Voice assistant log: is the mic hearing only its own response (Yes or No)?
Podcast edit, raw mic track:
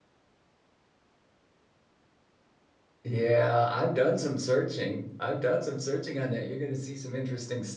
No